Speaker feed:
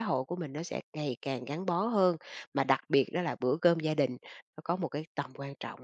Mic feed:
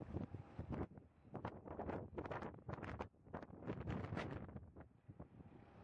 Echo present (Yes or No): No